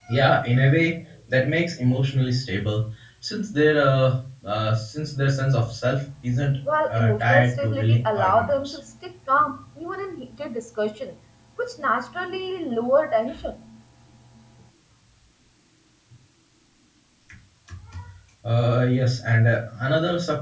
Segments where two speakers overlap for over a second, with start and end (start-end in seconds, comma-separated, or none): 6.9-8.8